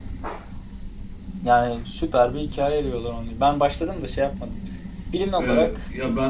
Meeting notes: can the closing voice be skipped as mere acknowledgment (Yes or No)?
No